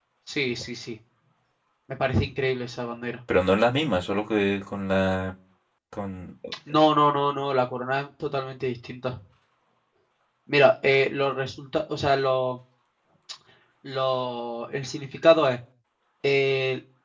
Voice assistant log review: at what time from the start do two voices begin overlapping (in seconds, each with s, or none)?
none